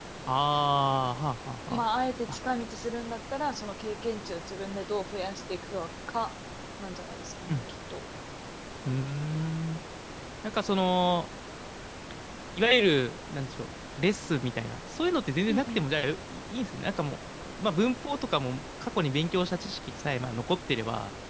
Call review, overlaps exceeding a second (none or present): none